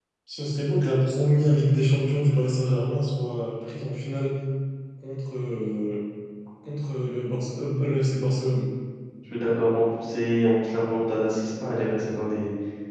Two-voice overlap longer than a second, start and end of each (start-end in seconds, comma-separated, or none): none